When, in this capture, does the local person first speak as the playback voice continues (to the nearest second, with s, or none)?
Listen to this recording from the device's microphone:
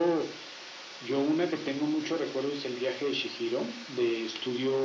none